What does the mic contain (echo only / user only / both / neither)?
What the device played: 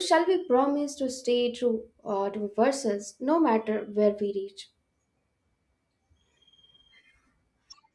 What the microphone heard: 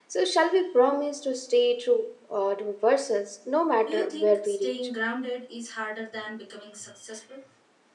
both